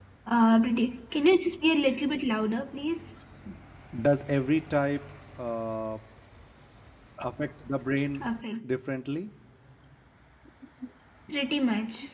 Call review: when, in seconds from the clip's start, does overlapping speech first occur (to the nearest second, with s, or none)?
none